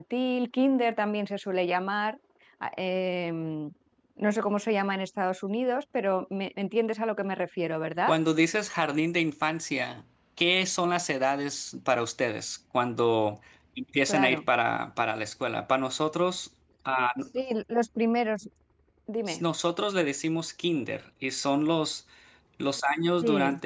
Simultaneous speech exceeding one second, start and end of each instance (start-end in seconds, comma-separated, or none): none